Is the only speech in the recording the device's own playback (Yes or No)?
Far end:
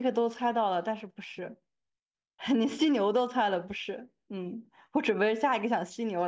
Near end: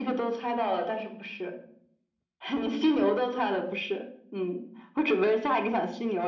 Yes